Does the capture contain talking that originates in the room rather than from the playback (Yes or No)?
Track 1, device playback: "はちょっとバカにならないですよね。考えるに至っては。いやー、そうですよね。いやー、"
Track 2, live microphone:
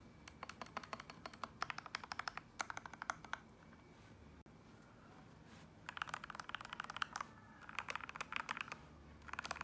No